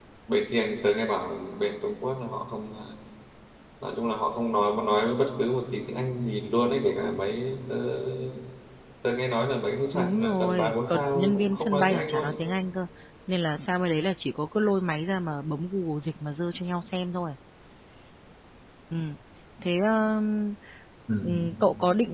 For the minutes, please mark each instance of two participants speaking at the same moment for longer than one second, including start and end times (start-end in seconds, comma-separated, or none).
9.9-12.4